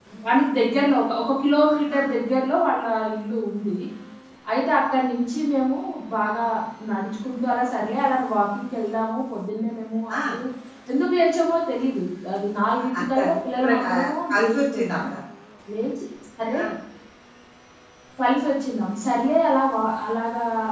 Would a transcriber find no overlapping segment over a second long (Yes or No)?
No